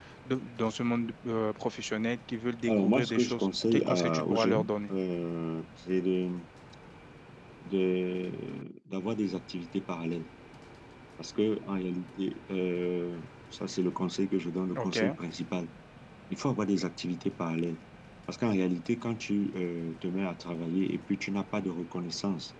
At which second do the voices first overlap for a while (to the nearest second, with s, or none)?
3 s